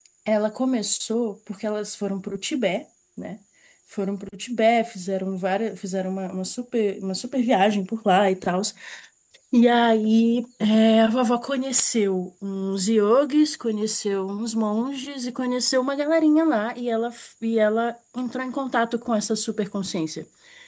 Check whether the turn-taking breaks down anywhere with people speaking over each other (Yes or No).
No